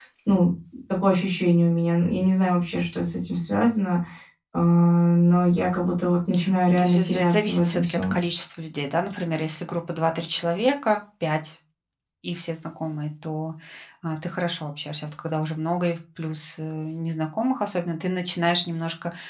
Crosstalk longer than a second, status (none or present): present